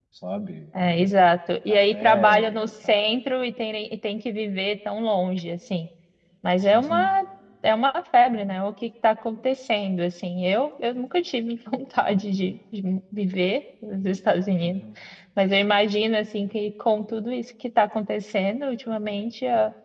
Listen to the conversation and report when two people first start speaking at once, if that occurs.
1.7 s

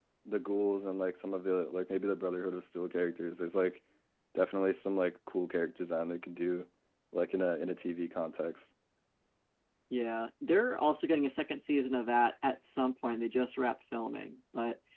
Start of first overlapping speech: none

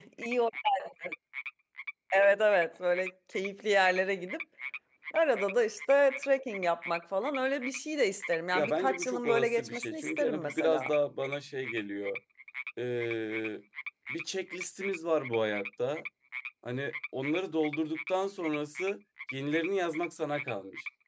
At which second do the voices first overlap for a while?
8.5 s

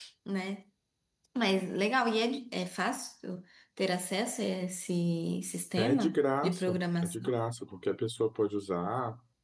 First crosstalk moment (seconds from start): 5.8 s

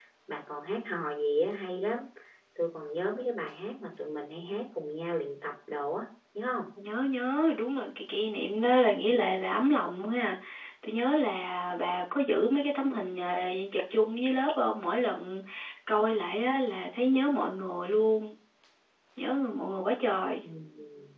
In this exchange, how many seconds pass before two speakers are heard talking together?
none

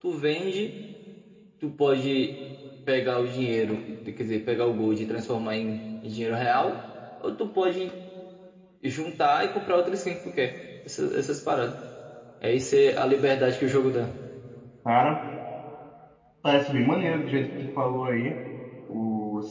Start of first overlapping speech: none

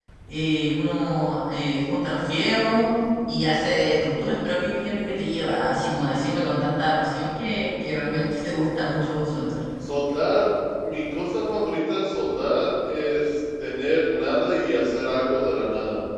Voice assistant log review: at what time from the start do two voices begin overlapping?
none

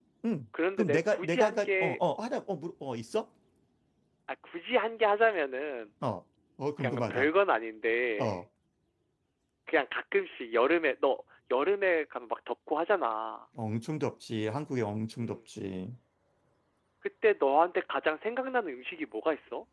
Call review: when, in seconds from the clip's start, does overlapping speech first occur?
0.8 s

